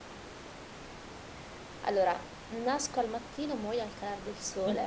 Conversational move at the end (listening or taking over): taking over